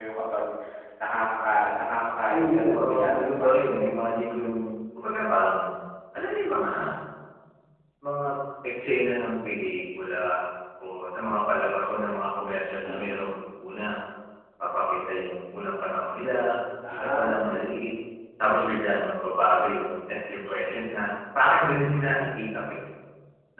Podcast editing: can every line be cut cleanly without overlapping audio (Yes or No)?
No